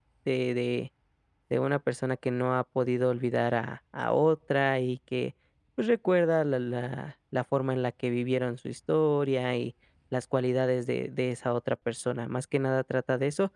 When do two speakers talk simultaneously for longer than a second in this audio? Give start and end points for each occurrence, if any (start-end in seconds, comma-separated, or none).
none